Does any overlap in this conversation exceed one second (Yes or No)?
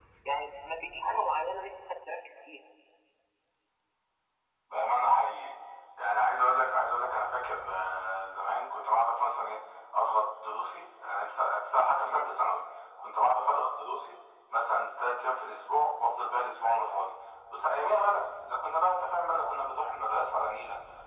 No